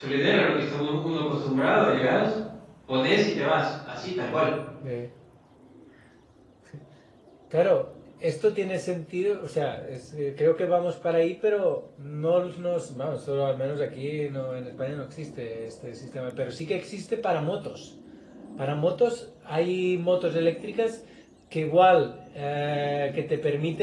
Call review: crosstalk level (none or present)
none